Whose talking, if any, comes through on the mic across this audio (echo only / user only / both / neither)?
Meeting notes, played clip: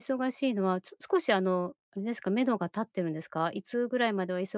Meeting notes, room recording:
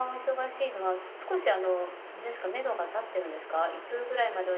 echo only